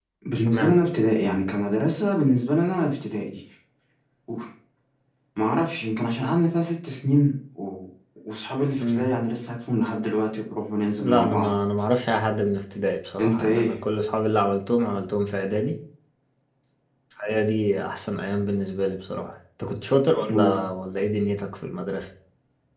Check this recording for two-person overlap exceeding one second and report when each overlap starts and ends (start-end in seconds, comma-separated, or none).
none